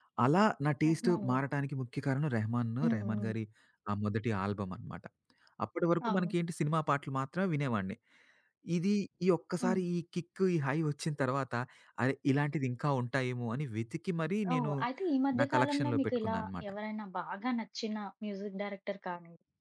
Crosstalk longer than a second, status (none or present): present